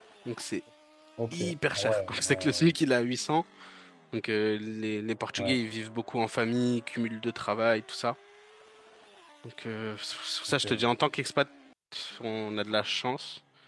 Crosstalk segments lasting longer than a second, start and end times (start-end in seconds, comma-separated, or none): 1.3-2.7